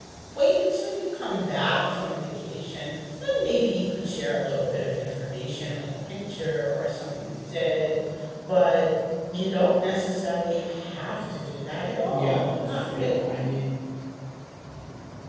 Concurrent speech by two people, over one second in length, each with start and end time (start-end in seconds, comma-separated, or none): 12.1-13.4